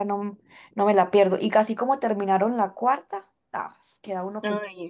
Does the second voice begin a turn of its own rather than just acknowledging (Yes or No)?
Yes